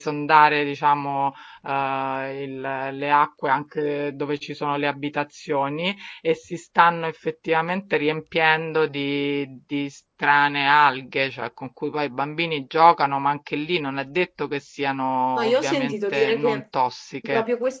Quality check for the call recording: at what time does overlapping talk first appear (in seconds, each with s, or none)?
15.4 s